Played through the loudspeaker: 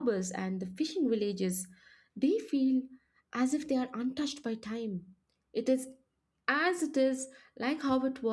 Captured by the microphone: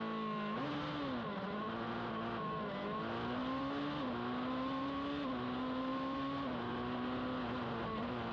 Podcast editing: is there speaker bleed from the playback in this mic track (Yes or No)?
No